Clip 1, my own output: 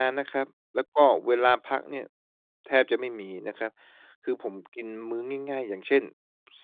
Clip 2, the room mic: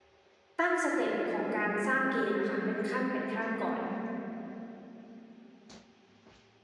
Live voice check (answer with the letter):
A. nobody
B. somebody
B